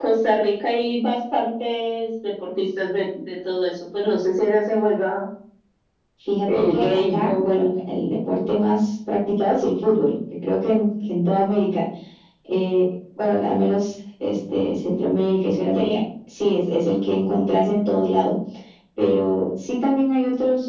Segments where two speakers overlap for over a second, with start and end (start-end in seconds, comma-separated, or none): 6.5-7.7